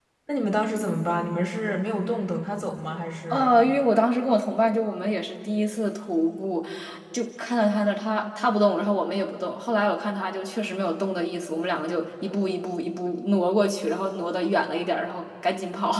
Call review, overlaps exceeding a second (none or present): none